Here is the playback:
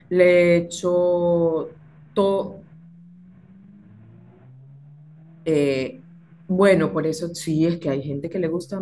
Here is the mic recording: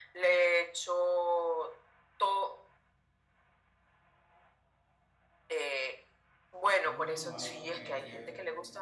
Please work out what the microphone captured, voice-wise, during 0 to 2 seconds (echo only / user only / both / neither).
echo only